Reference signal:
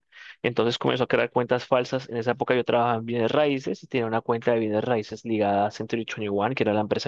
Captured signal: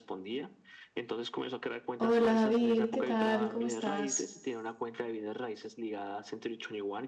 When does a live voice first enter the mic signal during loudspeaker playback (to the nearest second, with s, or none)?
2 s